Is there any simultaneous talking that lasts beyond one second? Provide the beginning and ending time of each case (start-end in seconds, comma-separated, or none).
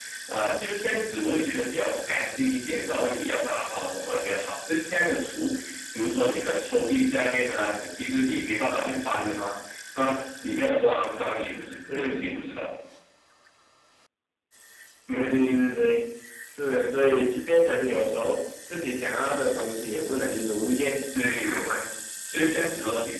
none